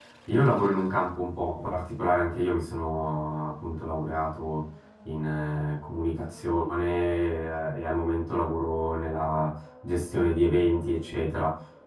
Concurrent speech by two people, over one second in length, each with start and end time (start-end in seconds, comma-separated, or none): none